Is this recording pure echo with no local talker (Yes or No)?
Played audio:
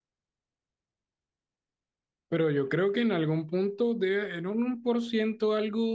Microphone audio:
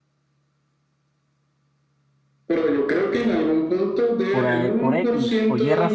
No